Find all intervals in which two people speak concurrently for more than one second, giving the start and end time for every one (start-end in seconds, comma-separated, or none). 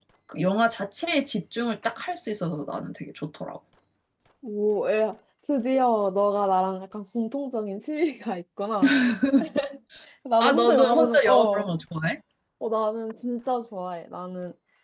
10.4-11.7